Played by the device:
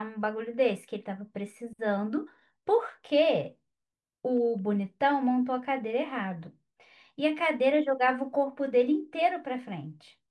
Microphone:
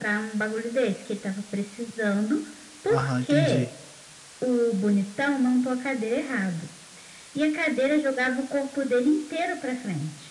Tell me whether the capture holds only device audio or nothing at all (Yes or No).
No